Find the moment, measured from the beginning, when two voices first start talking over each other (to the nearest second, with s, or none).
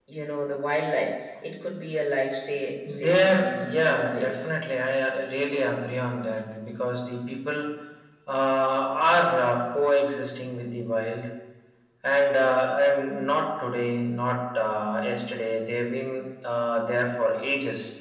3 s